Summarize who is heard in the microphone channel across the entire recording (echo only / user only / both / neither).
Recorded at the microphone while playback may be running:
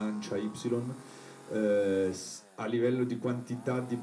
echo only